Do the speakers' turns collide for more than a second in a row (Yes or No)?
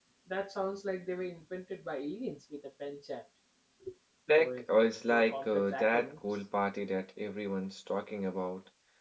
Yes